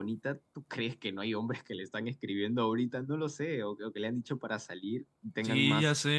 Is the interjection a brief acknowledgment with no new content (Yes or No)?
No